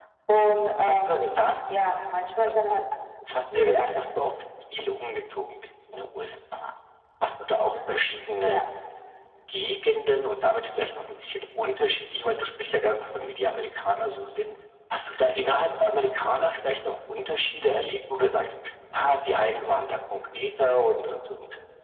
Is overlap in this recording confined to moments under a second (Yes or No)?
Yes